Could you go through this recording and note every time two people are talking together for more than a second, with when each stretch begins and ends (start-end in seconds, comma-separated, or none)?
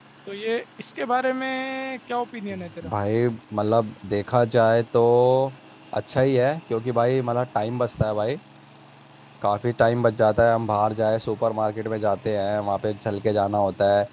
none